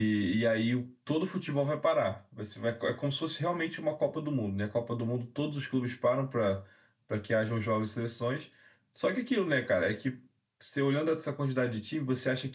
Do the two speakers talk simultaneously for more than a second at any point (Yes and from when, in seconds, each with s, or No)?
No